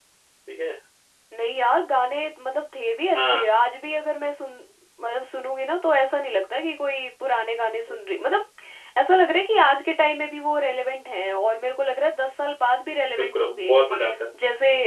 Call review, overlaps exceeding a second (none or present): none